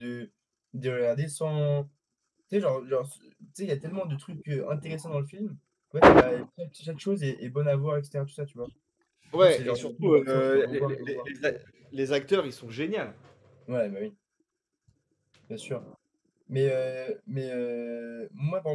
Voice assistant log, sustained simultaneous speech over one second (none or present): present